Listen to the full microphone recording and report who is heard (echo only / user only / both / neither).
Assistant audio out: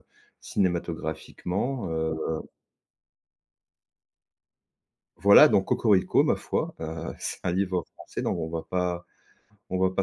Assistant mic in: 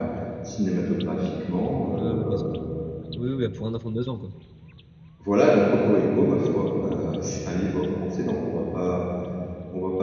both